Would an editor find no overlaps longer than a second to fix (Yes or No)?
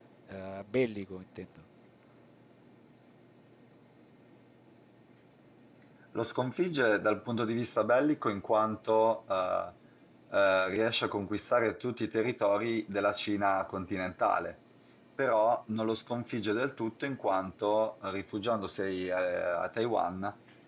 Yes